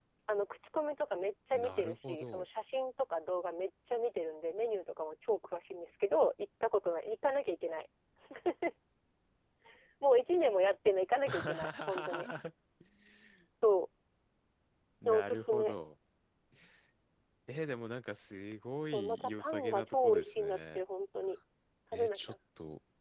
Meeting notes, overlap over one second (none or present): present